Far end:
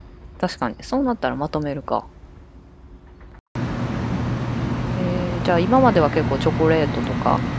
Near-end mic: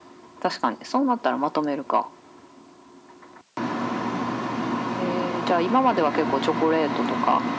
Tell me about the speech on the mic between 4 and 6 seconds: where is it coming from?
echo only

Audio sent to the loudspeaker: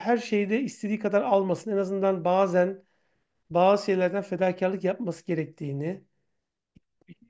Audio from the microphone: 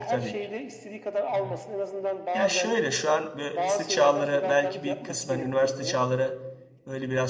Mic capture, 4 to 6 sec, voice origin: both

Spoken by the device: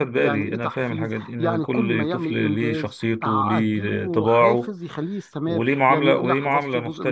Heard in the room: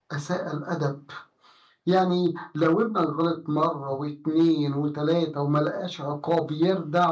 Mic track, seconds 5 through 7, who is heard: user only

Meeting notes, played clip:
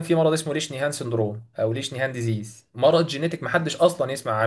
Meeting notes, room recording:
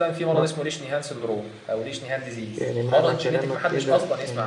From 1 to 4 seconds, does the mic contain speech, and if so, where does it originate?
both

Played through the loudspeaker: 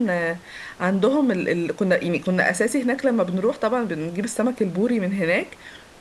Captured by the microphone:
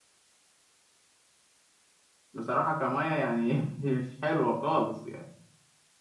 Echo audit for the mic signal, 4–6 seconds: user only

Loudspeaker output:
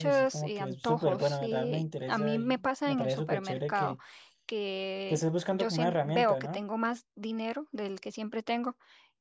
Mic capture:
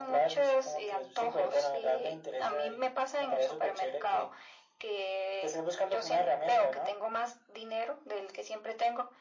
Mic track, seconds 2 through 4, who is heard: echo only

